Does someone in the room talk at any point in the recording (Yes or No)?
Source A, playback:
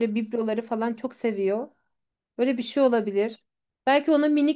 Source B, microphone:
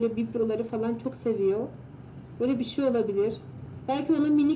No